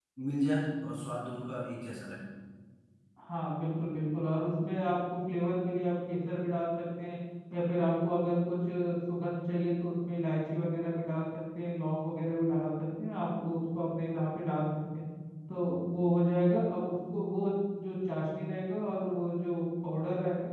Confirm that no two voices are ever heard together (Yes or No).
Yes